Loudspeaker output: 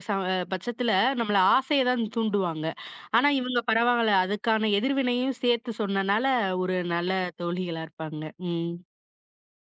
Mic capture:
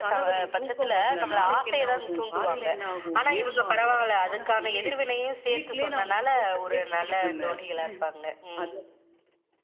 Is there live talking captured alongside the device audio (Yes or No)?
Yes